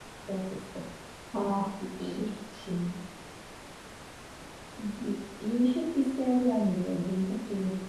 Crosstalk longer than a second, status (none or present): none